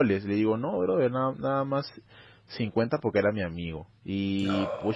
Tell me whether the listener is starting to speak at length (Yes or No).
No